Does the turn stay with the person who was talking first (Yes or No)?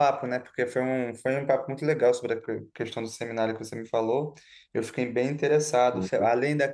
Yes